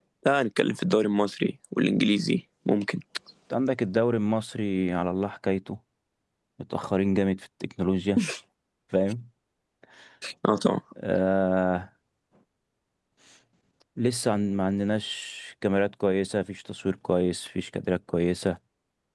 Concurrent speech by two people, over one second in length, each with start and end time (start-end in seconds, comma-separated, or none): none